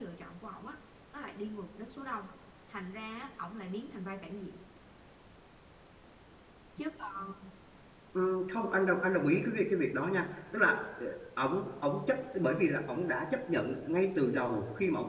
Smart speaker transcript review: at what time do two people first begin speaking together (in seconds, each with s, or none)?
none